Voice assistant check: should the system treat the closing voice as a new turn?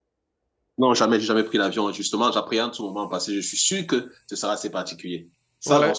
Yes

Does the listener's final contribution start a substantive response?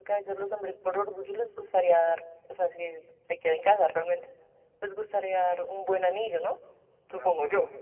Yes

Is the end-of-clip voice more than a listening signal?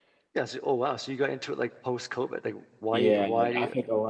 Yes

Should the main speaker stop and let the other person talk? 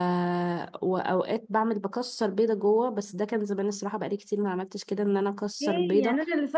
Yes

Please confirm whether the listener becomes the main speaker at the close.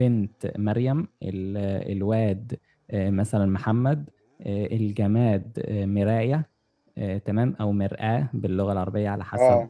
No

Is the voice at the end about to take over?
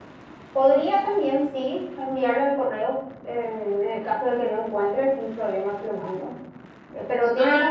No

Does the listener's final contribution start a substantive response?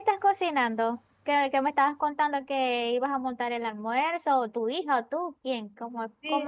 Yes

